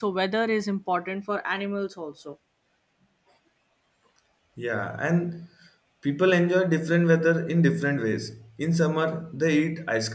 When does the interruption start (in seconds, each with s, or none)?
none